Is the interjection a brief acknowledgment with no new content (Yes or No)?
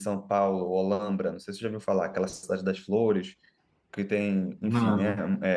Yes